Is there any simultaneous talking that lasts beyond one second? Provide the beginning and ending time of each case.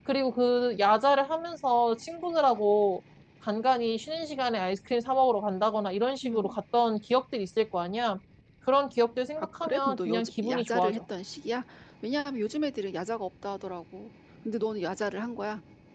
9.4-11.0

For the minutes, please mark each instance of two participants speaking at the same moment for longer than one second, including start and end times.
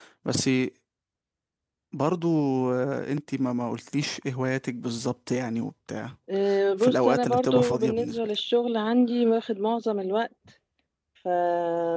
6.8-8.3

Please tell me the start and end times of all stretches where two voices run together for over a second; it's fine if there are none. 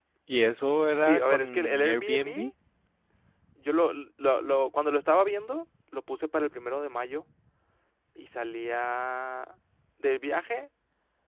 1.0-2.5

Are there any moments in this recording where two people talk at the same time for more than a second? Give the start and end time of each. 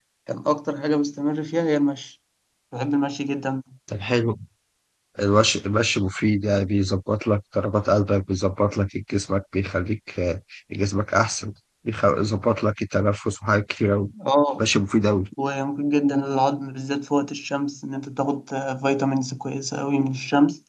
none

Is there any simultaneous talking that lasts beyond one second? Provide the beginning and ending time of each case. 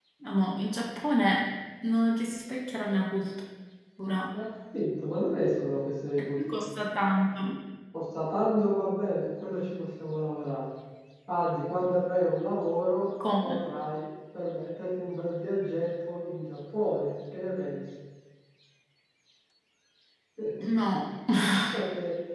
none

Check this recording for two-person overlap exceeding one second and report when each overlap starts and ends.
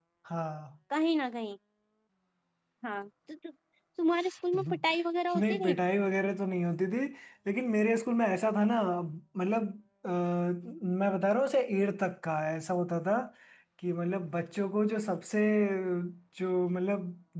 none

